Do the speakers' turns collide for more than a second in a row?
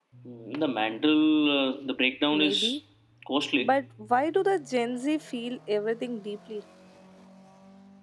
No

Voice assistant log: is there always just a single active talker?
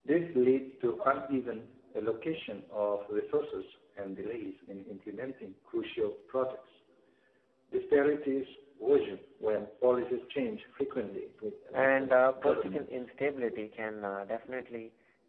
No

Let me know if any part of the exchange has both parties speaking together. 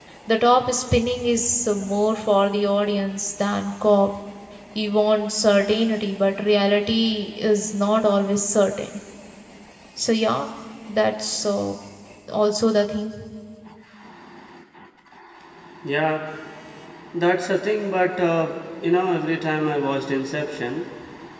No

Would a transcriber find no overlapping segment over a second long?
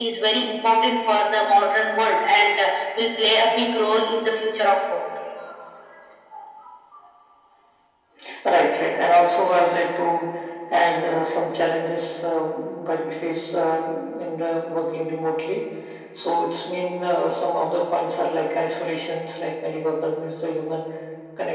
Yes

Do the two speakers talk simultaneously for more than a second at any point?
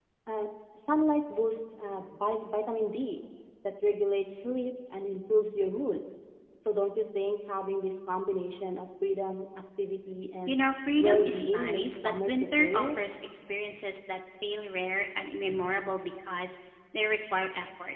Yes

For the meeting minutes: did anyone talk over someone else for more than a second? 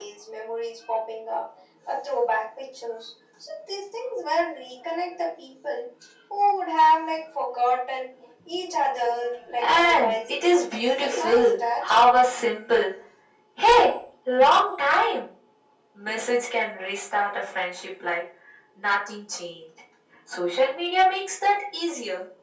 Yes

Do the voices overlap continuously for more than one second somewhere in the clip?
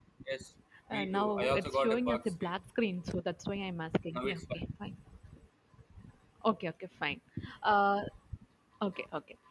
Yes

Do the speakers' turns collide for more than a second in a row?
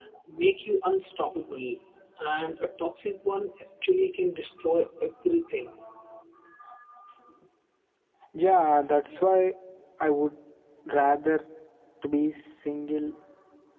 No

